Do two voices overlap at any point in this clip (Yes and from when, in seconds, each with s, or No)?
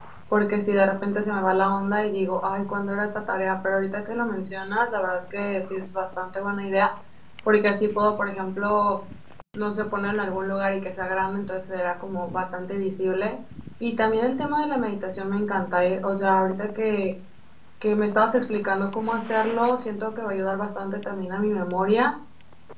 No